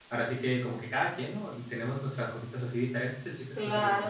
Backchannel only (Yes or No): No